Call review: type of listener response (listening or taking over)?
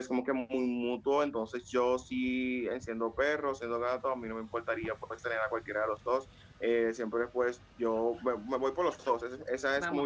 taking over